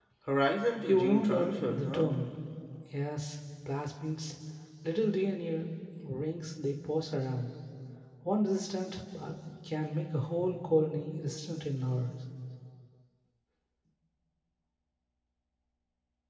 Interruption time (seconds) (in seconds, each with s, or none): 0.9 s